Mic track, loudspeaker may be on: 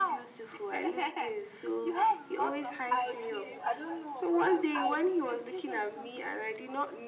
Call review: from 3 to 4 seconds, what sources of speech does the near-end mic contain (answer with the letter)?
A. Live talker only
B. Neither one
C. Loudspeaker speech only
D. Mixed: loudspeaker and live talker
D